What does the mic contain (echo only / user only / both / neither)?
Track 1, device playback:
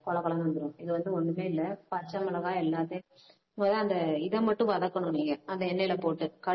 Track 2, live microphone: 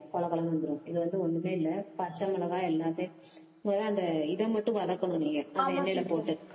both